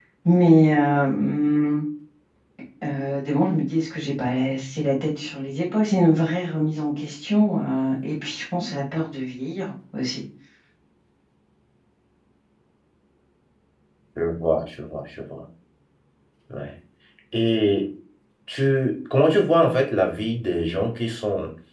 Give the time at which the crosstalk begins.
none

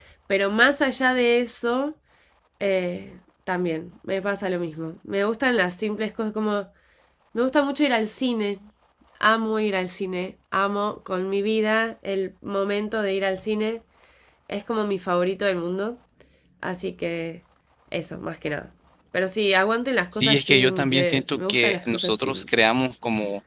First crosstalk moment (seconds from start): 20.1 s

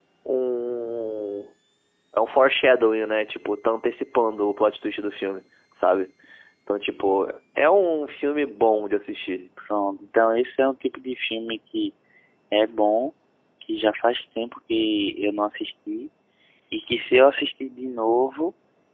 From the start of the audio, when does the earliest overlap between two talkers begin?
none

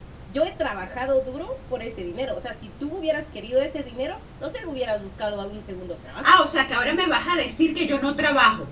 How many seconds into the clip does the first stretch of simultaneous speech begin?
none

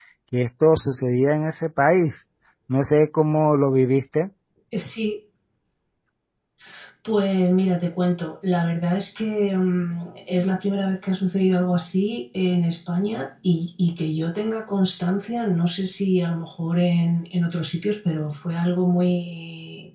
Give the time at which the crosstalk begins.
none

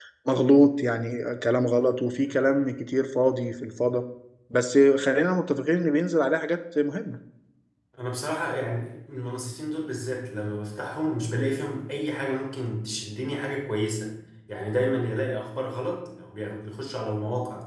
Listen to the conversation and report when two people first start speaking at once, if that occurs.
none

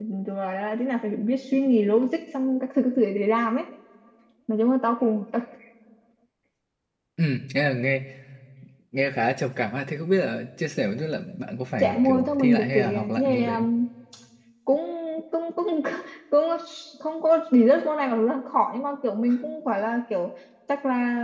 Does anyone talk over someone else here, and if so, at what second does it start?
11.8 s

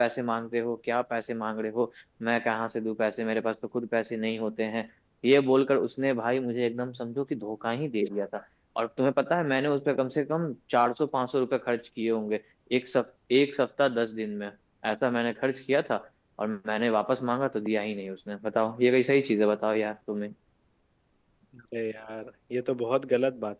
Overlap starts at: none

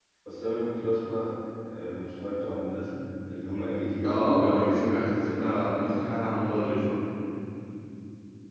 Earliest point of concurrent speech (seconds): 4.0 s

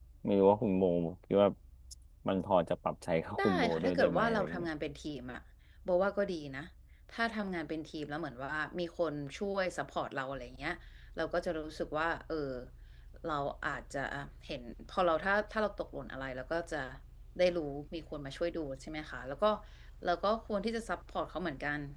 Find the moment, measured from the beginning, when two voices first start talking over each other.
3.4 s

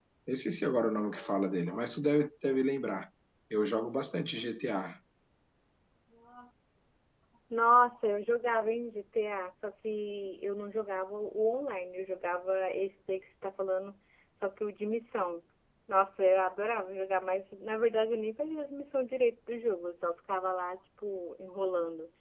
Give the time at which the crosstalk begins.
none

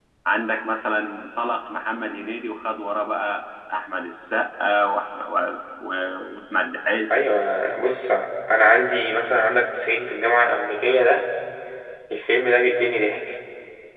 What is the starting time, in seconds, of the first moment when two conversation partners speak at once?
none

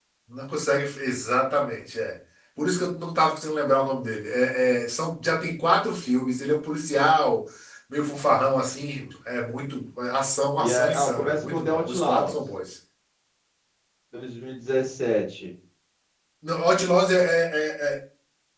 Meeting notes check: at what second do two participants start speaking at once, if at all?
10.6 s

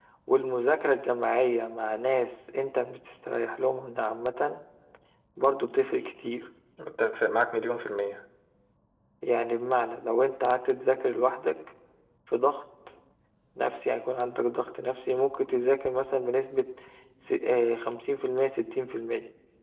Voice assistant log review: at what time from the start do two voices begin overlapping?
none

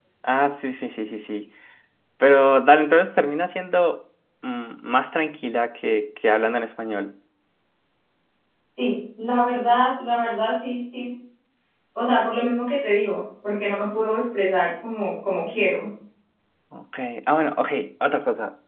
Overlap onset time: none

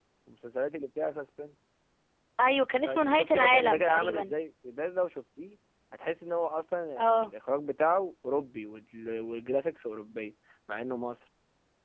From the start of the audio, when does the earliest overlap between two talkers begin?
2.9 s

